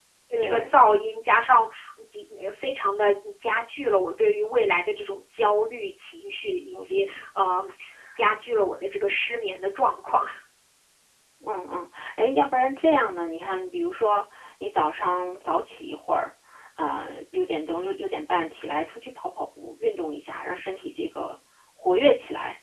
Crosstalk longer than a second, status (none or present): none